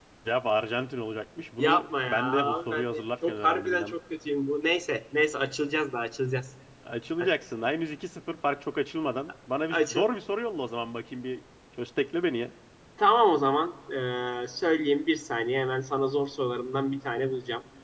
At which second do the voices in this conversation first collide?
1.6 s

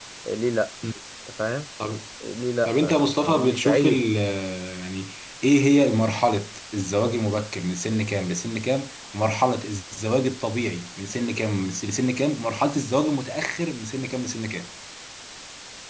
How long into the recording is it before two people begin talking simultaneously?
2.6 s

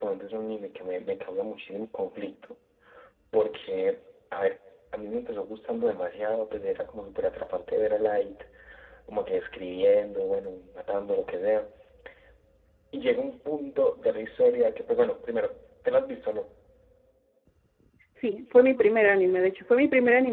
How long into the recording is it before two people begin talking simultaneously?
none

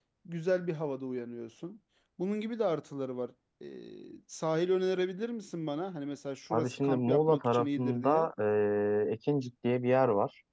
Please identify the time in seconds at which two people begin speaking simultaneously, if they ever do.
6.5 s

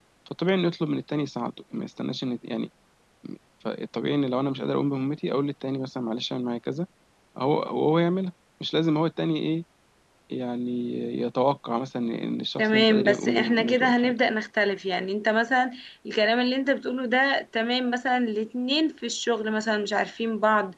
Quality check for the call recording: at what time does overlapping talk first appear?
12.6 s

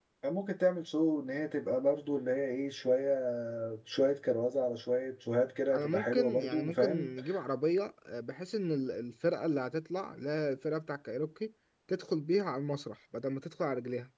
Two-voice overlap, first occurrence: 5.7 s

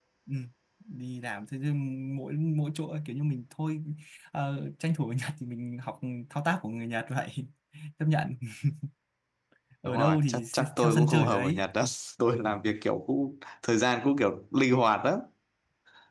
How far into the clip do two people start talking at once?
9.8 s

